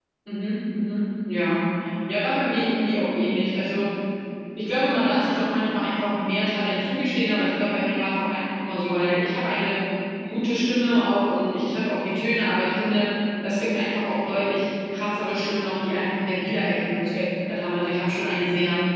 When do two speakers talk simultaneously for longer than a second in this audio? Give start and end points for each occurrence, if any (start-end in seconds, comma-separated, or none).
none